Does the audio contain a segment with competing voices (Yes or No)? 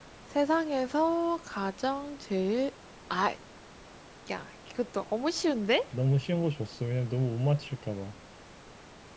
No